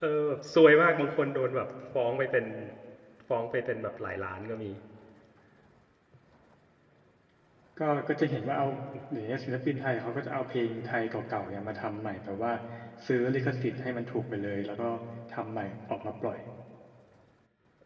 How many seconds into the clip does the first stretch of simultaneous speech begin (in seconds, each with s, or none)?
none